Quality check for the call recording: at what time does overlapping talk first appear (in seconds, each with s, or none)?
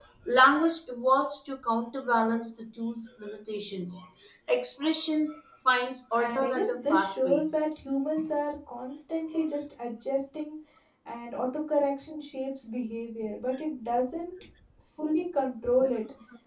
6.2 s